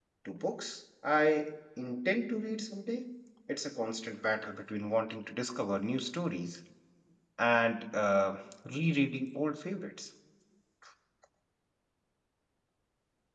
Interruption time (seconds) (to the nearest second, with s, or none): none